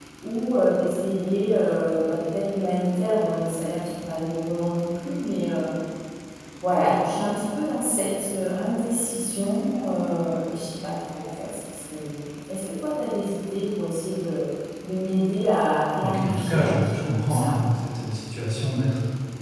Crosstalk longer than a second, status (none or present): present